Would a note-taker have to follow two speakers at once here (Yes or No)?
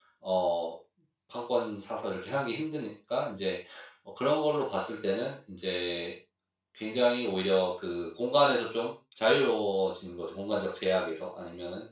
No